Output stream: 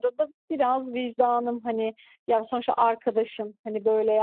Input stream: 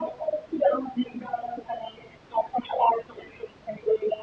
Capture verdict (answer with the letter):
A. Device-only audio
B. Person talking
A